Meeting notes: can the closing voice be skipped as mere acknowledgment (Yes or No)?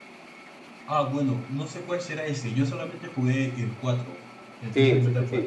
No